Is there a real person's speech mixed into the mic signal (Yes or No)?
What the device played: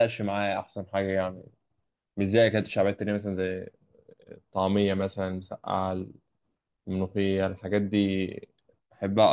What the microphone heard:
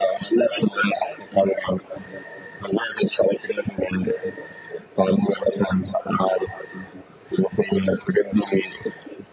No